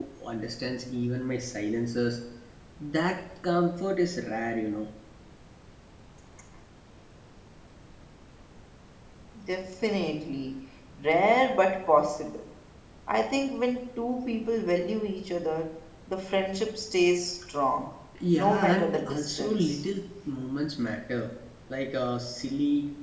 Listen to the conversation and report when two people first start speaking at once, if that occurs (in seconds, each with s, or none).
18.4 s